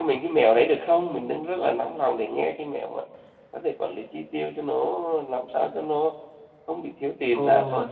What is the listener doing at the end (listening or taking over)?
taking over